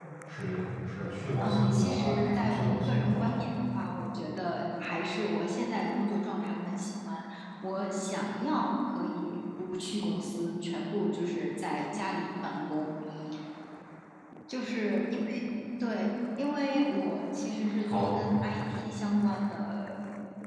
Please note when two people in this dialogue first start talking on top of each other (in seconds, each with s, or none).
1.4 s